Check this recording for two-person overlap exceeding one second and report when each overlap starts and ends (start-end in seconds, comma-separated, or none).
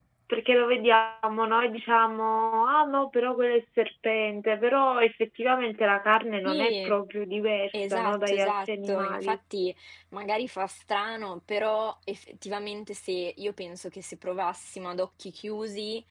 7.7-9.4